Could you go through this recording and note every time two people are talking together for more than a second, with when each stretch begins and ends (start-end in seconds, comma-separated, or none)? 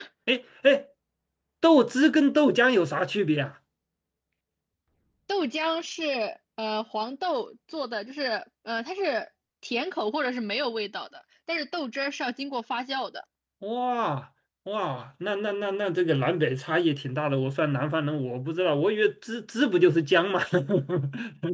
none